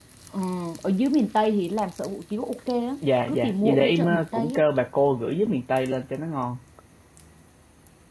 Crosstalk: present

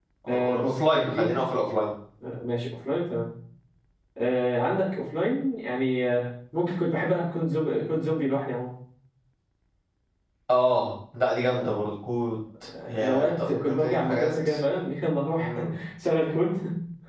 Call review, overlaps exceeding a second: present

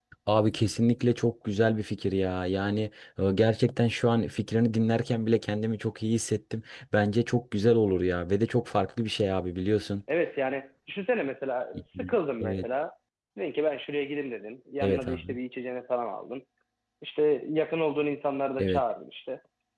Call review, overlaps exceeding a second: none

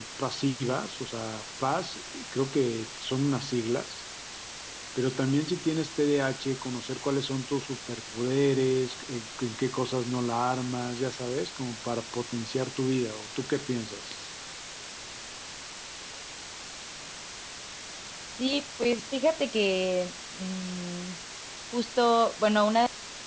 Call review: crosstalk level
none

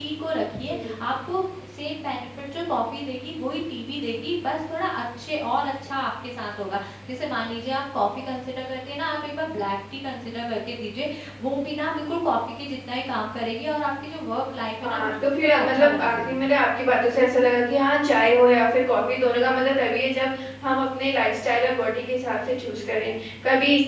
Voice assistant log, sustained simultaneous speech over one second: present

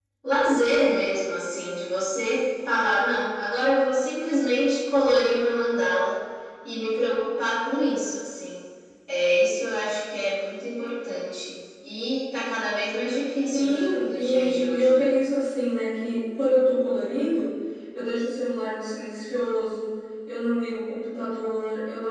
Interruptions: present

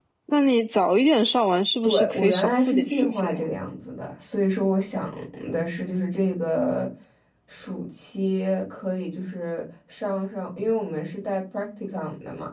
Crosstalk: present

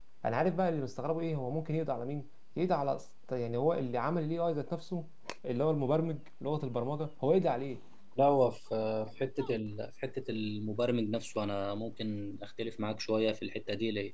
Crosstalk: none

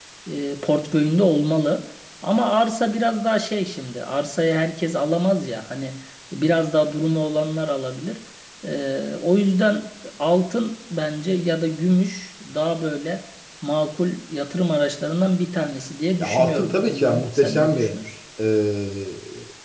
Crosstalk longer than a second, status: present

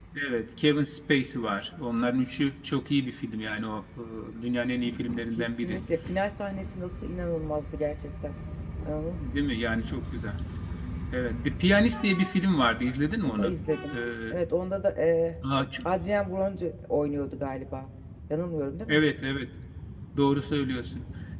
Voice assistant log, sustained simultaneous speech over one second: none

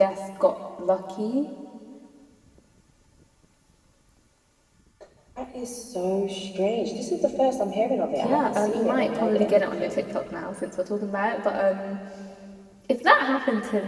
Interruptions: present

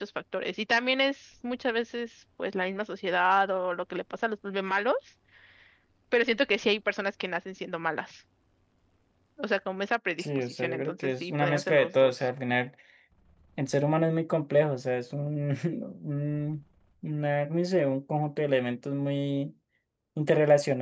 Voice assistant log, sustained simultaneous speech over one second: present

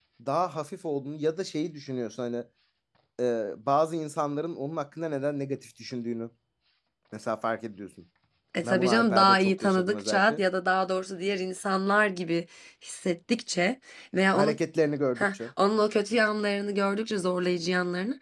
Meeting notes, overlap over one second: present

